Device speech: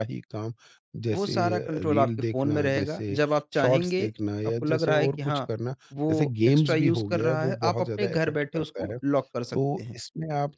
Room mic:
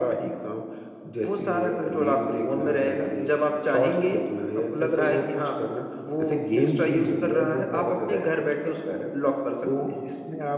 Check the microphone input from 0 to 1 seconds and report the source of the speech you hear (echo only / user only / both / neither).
echo only